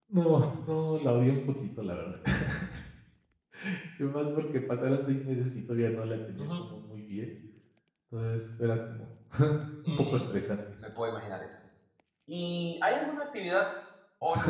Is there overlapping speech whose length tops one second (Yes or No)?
No